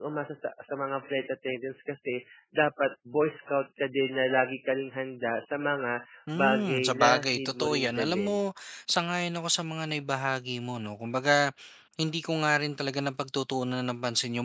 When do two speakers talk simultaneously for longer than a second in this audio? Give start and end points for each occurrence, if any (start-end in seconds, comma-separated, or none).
6.3-8.4